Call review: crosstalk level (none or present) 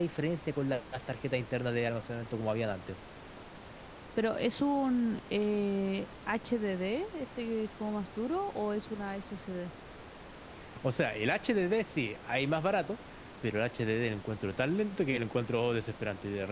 none